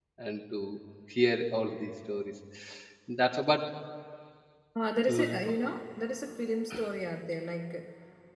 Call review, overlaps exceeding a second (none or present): none